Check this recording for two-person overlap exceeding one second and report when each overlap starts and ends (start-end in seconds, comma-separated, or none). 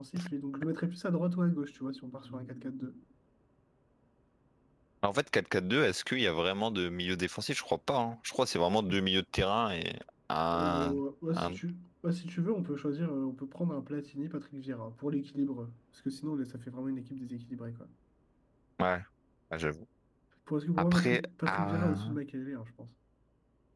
20.8-22.1